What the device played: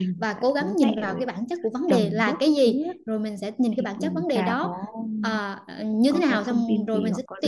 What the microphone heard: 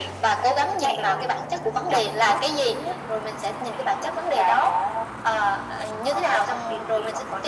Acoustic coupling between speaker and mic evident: Yes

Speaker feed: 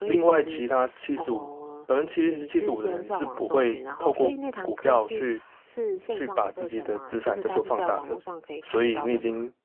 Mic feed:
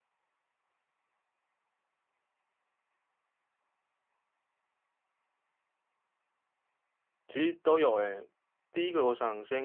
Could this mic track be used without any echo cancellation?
Yes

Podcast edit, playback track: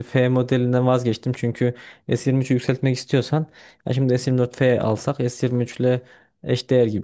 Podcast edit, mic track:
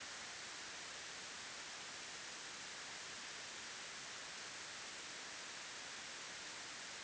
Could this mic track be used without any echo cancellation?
Yes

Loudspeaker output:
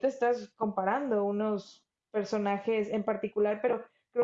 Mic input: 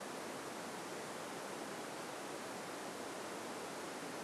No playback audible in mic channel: Yes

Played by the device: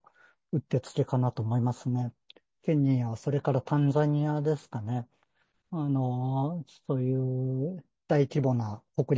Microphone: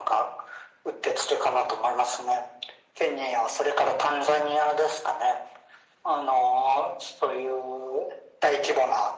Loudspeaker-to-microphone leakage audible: Yes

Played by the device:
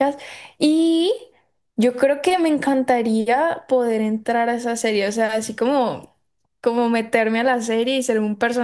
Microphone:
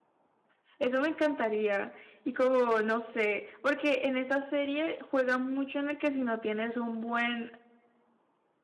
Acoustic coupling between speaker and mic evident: No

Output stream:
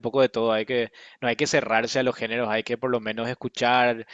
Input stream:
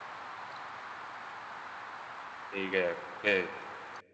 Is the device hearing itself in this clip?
No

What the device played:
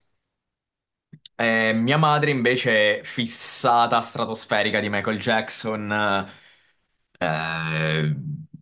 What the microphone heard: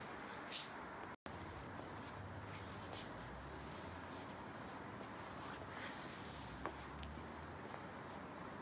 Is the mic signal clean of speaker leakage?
Yes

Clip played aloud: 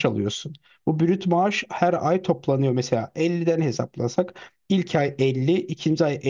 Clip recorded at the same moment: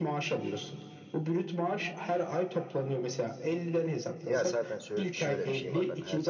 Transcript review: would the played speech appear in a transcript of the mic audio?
Yes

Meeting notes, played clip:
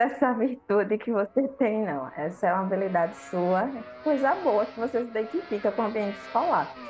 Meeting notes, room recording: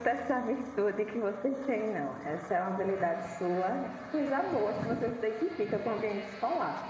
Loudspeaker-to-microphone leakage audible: Yes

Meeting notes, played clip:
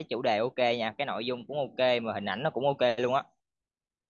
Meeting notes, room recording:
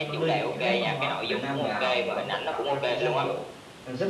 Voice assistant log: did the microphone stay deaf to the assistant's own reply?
No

